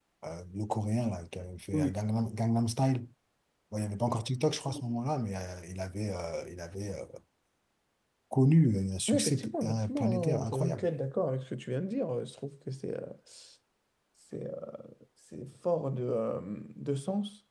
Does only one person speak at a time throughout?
No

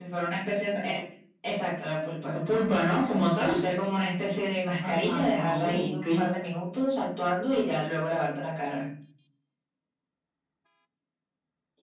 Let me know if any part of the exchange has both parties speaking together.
Yes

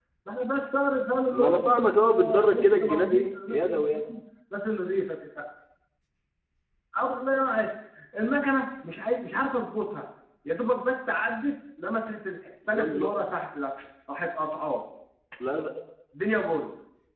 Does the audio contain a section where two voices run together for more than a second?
Yes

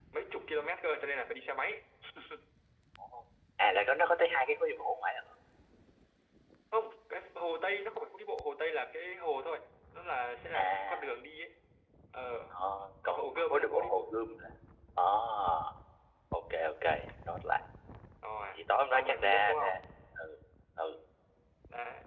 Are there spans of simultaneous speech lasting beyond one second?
Yes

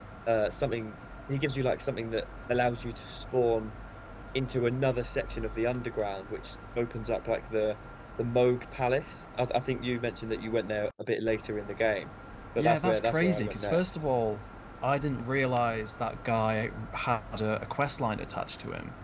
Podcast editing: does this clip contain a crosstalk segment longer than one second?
Yes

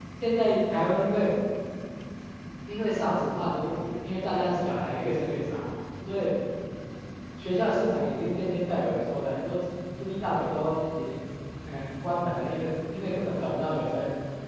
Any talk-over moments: No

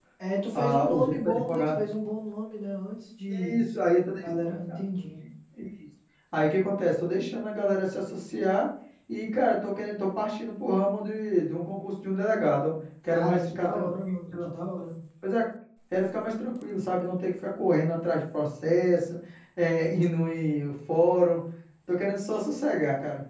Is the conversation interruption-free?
No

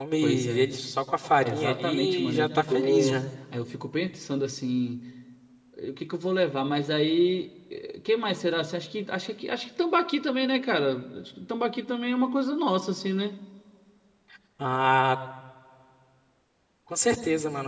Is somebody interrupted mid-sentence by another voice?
Yes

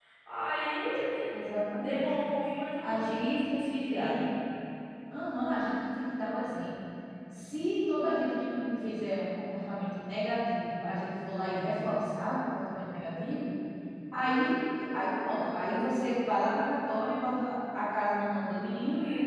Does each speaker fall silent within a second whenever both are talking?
No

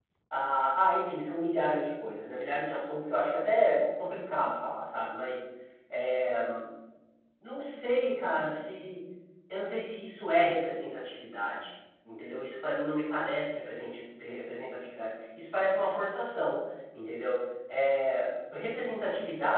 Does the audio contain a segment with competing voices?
No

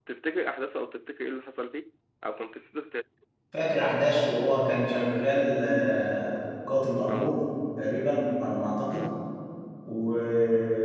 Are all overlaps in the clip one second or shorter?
Yes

